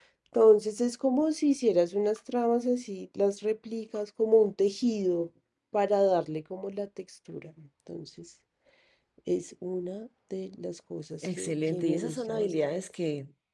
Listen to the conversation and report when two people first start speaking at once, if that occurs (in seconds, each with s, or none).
11.2 s